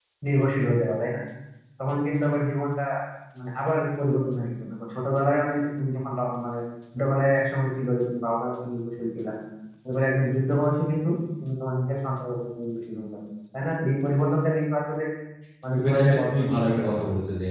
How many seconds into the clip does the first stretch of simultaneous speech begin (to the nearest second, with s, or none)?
16 s